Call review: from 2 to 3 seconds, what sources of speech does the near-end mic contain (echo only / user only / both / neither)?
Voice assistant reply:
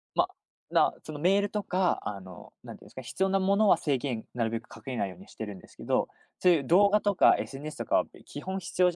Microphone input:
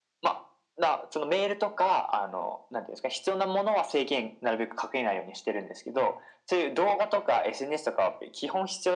echo only